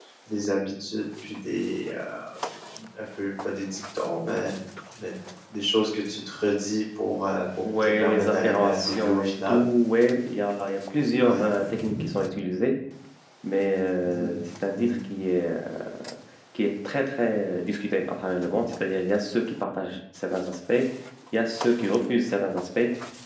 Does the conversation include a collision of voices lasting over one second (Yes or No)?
Yes